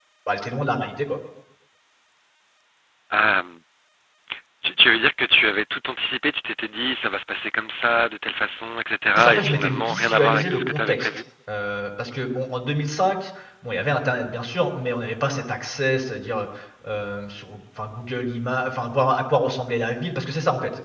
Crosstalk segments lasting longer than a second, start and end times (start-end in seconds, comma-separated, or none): 9.2-11.1